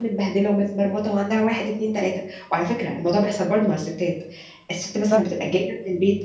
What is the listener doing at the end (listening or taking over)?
listening